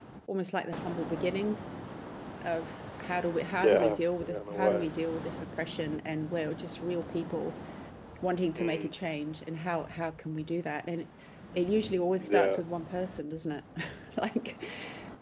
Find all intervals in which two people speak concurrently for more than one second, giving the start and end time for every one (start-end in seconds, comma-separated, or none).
3.6-4.9